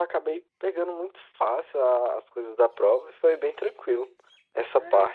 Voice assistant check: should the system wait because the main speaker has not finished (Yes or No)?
No